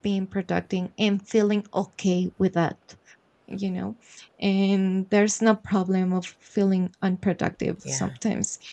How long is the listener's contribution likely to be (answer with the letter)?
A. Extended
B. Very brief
B